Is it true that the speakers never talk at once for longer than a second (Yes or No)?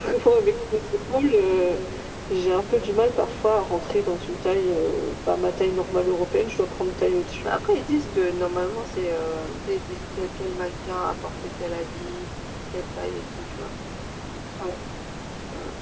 Yes